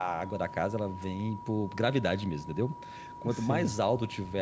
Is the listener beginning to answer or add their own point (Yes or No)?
No